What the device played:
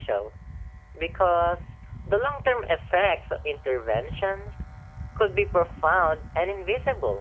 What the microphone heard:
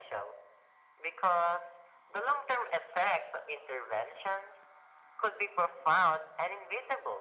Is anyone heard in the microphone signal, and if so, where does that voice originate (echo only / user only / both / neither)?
echo only